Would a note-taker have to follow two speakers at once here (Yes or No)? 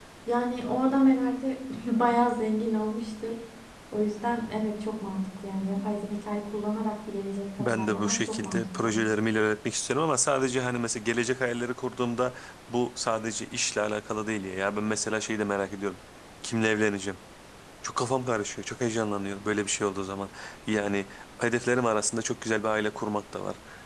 Yes